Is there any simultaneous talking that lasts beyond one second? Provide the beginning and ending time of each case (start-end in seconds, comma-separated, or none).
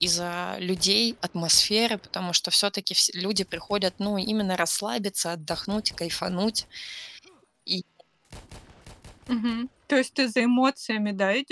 none